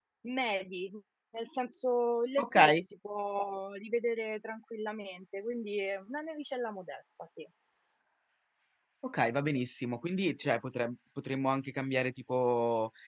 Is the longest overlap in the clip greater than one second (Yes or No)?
No